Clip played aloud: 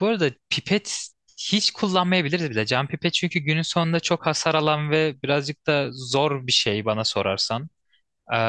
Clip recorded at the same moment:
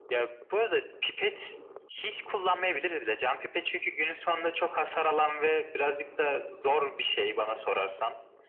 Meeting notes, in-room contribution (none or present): none